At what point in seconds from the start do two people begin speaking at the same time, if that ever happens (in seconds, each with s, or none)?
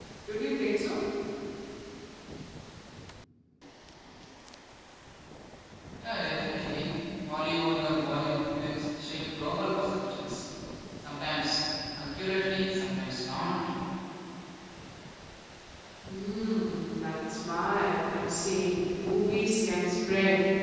none